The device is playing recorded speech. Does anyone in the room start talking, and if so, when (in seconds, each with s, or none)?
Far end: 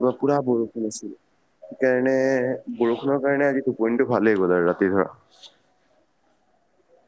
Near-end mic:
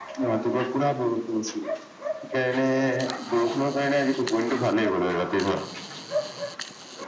none